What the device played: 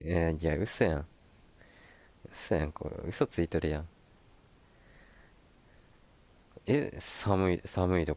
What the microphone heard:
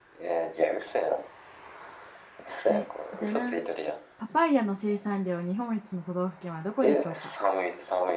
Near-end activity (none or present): present